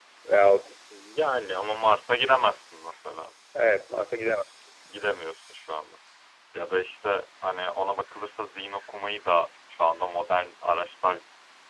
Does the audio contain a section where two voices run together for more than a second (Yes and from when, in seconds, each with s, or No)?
No